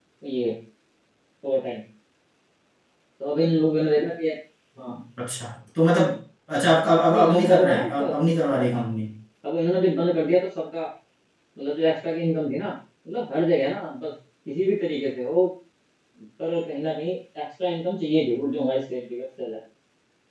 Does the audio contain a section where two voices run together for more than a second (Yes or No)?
Yes